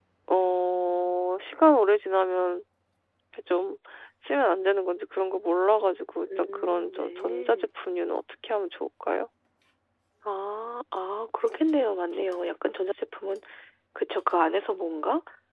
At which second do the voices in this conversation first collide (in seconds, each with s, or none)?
6.2 s